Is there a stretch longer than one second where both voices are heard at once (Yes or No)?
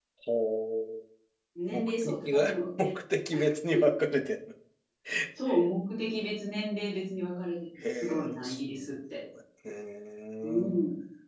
Yes